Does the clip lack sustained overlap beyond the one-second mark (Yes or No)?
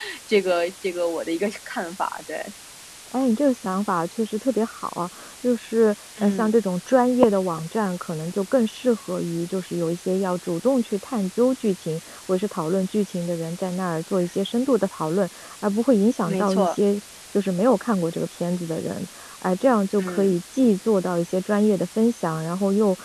Yes